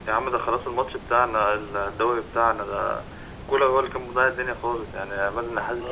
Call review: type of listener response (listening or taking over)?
listening